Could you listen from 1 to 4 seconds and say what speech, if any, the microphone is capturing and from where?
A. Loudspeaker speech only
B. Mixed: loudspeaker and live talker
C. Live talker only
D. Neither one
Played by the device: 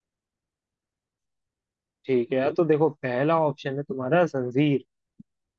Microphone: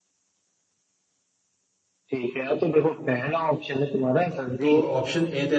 A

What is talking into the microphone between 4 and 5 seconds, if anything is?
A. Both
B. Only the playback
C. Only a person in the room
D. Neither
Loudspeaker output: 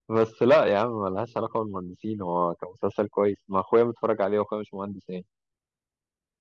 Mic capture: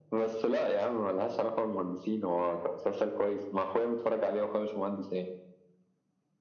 B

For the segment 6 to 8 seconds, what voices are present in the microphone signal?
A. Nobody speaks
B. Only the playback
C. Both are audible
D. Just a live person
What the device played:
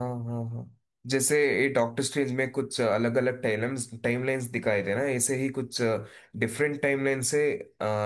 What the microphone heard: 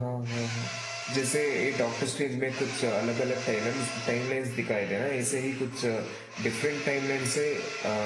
B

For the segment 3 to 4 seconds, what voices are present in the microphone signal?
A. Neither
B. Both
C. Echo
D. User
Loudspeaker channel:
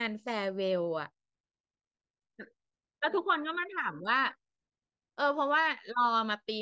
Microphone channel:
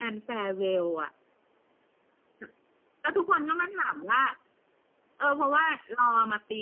C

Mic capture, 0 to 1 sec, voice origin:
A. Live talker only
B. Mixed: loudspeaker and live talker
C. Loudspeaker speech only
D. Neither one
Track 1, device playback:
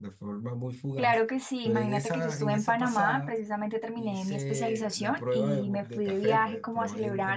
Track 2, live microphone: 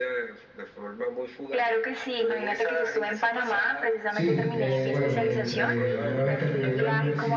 C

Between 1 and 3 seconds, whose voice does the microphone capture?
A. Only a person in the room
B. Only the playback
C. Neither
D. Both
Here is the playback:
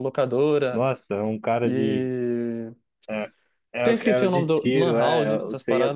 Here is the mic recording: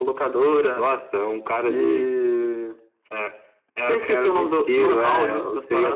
B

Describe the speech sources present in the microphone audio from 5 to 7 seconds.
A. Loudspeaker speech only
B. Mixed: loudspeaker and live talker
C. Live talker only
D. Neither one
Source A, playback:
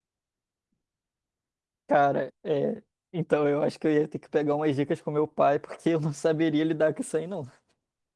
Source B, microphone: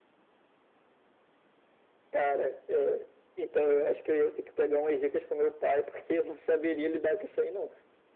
A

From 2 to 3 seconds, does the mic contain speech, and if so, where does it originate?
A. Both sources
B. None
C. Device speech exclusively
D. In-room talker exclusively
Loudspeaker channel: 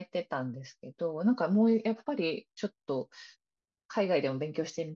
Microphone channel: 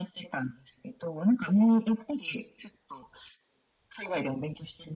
C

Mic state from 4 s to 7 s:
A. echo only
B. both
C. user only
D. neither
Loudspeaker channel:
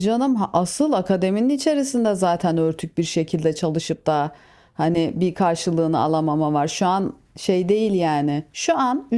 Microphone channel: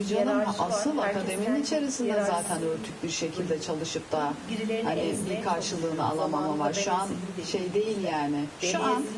B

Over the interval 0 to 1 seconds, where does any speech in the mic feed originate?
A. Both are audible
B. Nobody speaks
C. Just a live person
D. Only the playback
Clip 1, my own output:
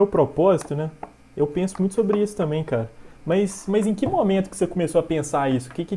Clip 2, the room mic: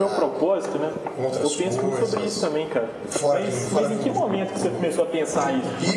A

